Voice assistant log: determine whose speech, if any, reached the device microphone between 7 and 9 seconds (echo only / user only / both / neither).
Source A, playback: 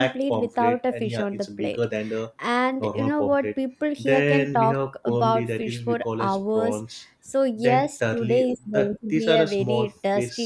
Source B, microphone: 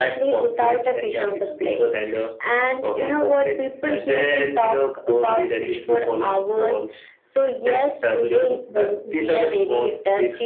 echo only